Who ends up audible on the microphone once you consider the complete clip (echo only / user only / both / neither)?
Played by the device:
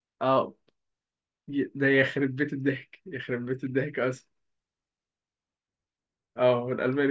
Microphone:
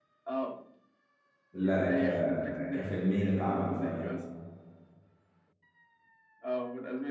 both